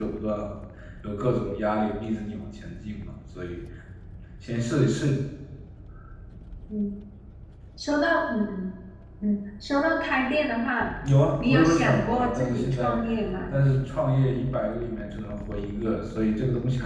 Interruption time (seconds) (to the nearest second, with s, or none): 11 s